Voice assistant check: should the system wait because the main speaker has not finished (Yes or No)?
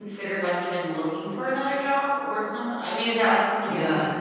No